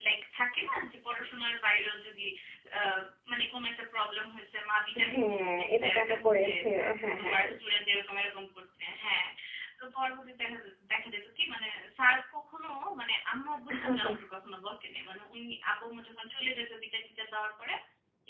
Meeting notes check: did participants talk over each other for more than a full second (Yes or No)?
Yes